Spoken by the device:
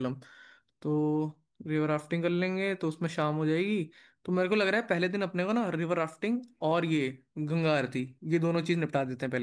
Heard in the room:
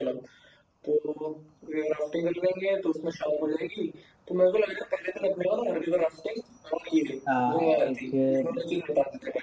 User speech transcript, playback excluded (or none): एक